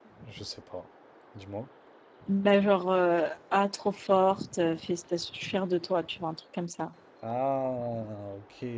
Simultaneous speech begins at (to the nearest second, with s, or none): none